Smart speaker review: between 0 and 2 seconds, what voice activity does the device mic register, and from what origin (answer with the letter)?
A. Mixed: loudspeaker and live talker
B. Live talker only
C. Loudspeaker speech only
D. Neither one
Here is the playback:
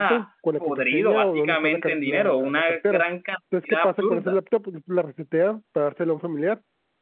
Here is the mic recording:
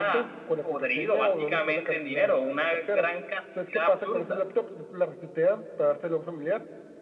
C